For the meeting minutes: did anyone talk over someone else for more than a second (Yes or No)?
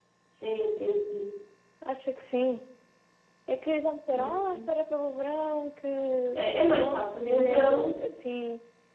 Yes